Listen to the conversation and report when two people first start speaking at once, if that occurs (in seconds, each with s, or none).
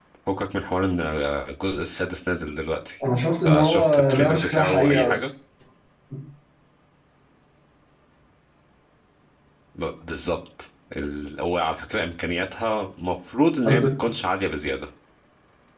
3.4 s